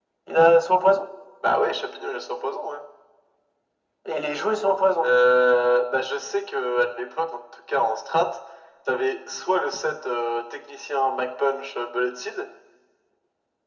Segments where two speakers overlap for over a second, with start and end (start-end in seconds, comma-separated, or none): none